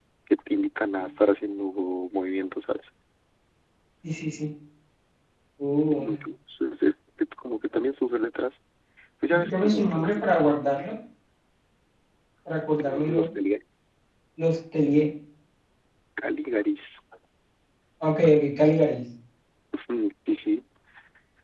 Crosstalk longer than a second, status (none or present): present